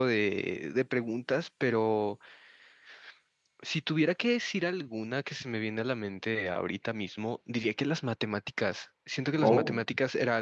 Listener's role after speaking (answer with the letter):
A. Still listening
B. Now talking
A